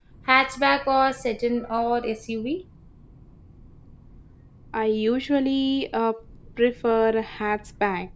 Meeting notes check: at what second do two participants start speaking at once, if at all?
none

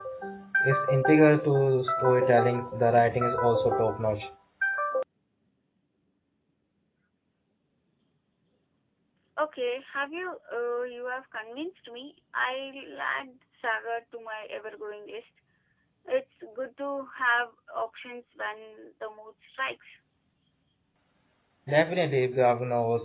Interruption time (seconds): none

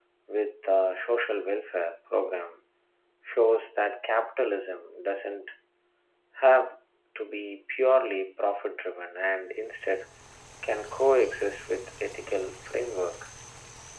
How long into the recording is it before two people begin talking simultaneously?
none

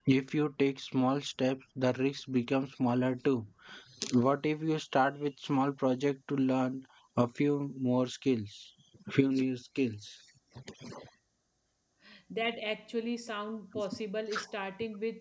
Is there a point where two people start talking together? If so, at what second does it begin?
none

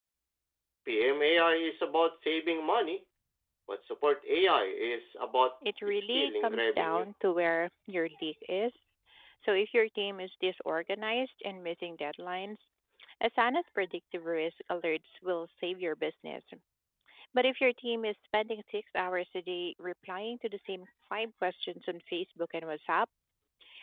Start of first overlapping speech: 5.6 s

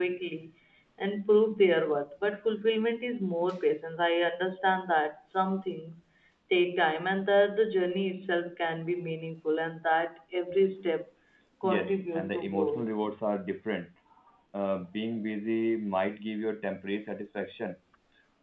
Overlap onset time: 11.7 s

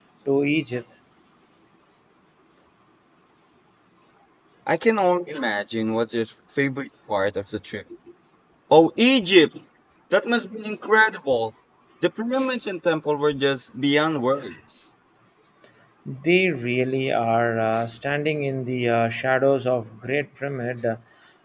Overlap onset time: none

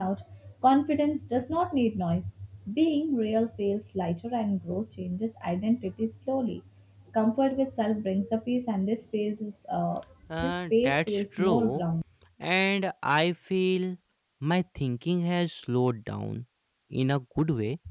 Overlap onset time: 10.4 s

